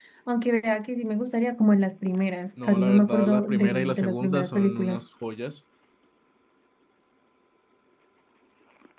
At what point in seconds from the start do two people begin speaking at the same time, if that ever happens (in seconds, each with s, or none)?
2.6 s